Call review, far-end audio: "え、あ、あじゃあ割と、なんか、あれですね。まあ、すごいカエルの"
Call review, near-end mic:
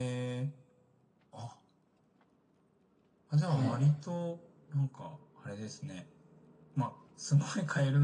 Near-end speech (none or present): present